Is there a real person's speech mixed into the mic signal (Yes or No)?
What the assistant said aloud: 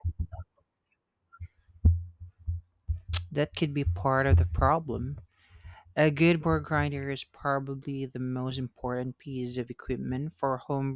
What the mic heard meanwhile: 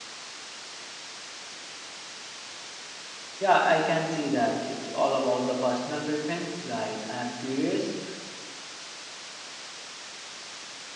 Yes